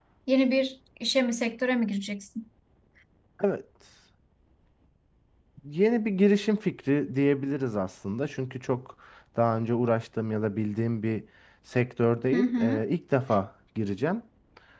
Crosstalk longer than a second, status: none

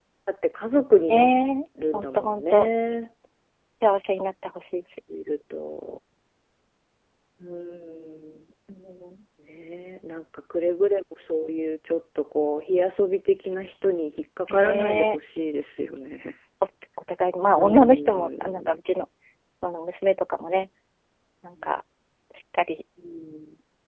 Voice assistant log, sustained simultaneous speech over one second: present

